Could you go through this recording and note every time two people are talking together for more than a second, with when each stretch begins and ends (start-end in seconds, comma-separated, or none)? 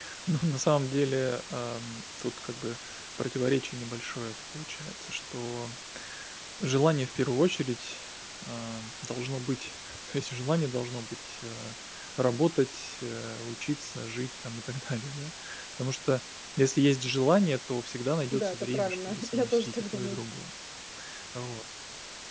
18.3-20.2